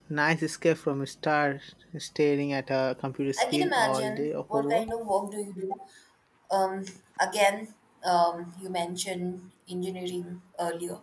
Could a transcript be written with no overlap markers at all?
No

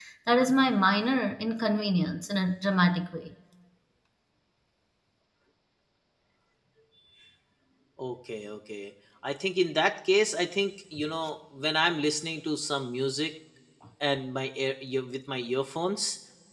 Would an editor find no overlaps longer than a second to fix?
Yes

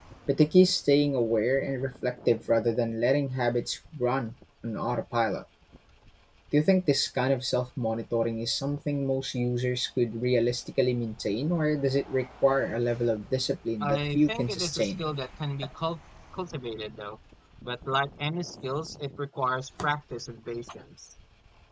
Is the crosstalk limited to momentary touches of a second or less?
No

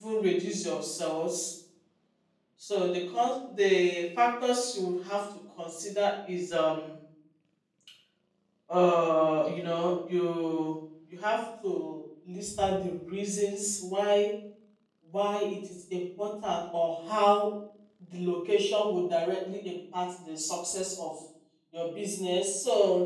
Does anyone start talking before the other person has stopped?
No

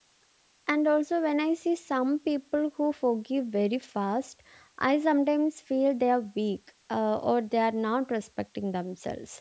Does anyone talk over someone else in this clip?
No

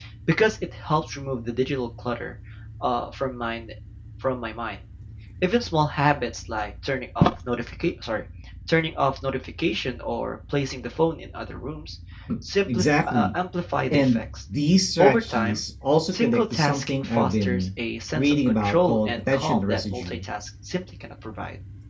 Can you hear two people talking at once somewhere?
Yes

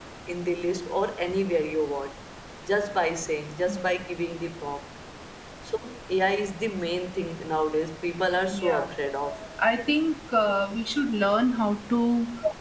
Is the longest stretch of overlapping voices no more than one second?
Yes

